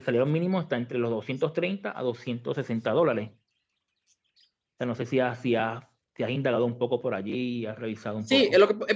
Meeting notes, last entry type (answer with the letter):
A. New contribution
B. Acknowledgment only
A